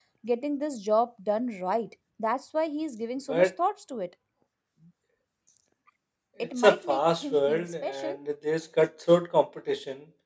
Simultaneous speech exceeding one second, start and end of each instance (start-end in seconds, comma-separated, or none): 6.6-8.2